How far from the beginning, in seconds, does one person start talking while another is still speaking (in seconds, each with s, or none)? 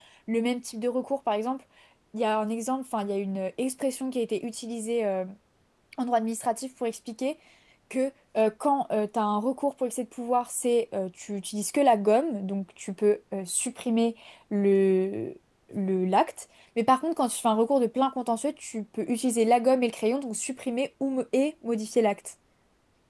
none